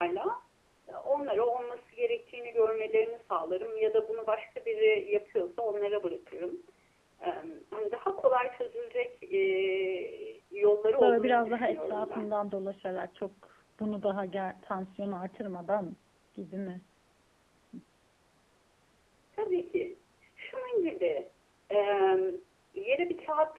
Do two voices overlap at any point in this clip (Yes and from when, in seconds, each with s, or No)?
Yes, from 11.0 s